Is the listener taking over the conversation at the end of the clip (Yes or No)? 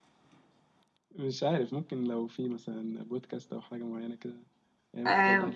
Yes